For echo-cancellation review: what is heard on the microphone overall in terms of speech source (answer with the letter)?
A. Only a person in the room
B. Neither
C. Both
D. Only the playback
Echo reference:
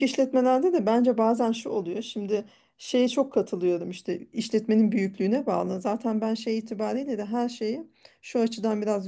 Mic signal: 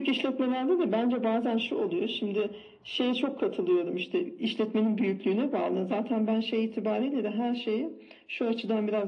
D